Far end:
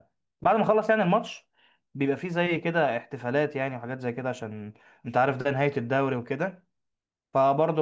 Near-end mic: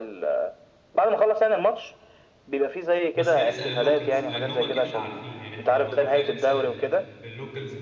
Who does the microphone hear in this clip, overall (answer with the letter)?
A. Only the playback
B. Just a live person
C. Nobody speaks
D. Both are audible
D